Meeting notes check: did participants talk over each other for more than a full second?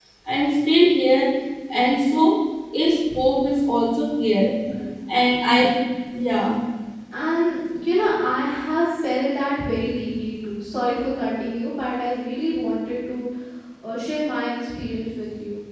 No

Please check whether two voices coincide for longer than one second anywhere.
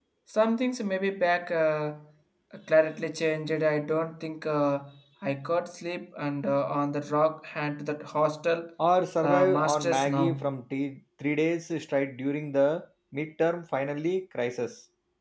Yes, from 9.2 s

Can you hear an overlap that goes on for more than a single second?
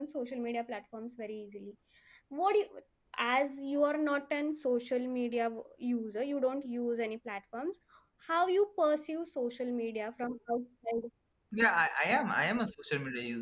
No

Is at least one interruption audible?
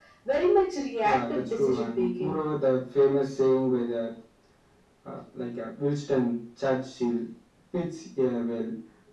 Yes, from 1.0 s

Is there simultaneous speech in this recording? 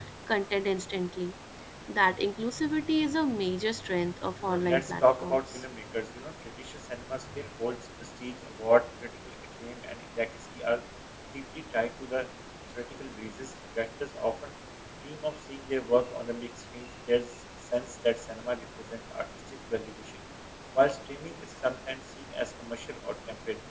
Yes, from 4.4 s

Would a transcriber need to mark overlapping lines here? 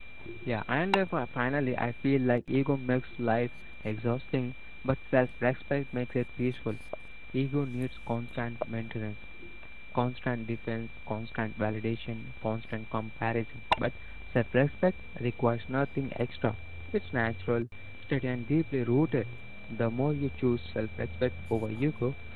No

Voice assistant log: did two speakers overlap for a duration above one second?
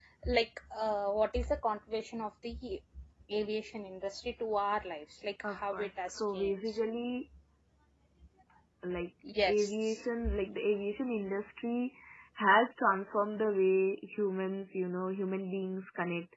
Yes, from 5.4 s

